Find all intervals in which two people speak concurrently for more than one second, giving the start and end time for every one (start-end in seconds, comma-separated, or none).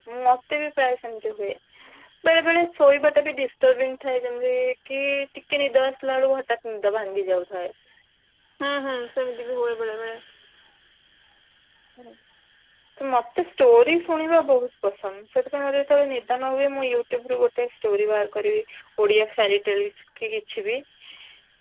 none